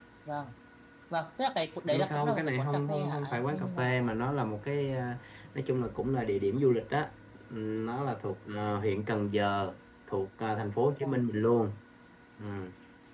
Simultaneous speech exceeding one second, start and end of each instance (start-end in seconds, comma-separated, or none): 1.9-4.1